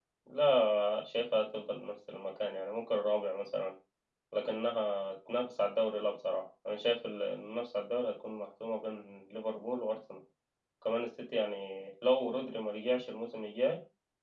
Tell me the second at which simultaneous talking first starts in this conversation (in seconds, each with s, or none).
none